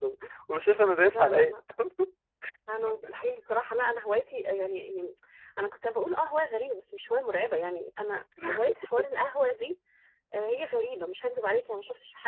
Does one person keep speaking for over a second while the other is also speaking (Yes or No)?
No